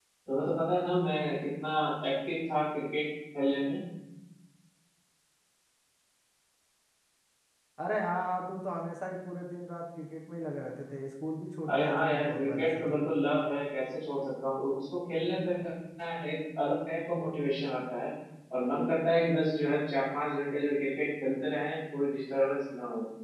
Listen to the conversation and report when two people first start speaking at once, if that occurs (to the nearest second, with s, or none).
12 s